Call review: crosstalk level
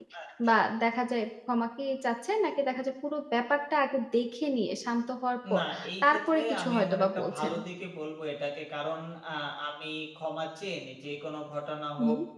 present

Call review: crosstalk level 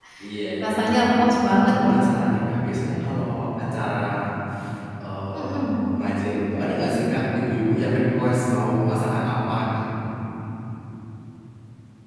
present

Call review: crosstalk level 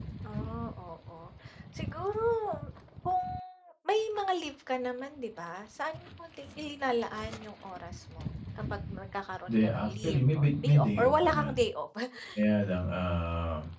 present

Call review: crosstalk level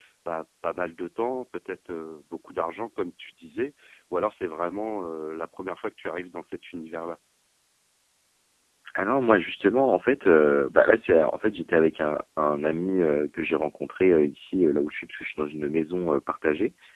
none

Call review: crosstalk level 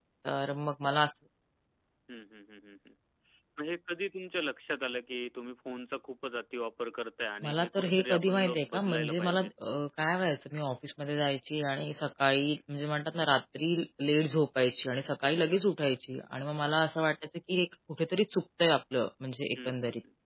present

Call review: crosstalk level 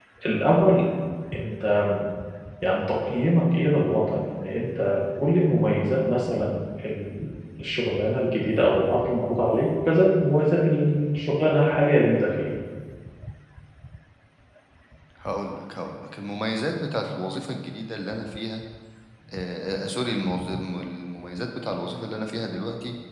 none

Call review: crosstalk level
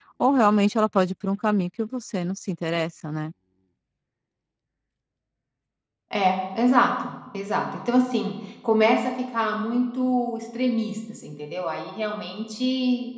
none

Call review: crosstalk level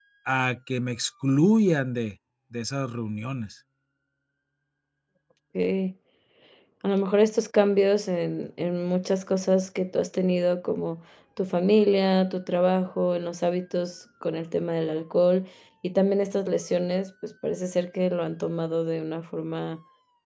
none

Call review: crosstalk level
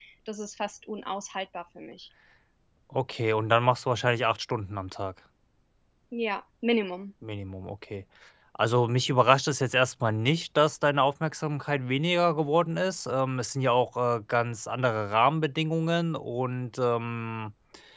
none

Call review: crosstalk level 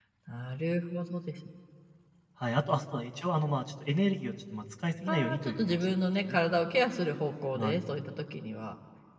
present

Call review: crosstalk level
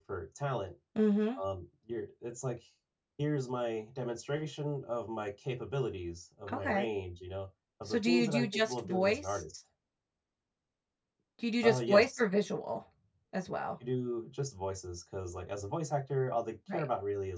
present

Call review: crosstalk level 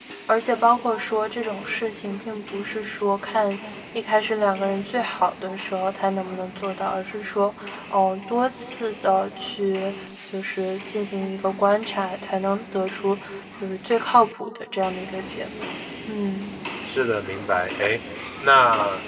none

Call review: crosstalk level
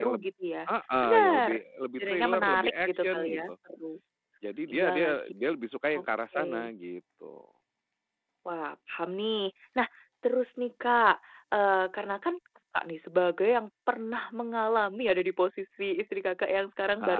present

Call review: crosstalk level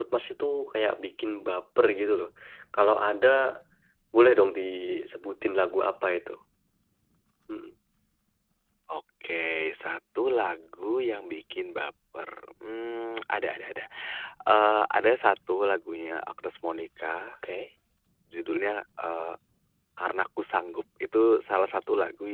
none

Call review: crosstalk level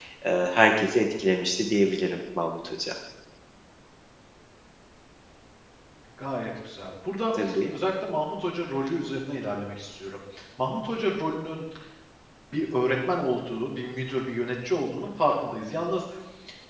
none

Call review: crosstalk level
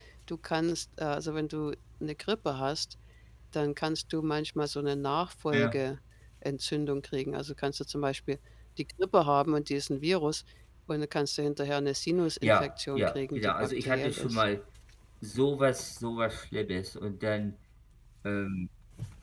present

